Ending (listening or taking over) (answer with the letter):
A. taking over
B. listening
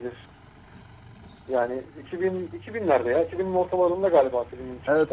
A